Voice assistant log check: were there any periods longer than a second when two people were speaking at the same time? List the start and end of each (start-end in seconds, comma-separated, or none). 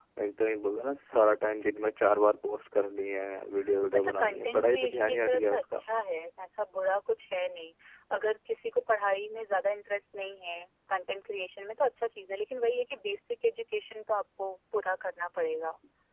4.0-5.8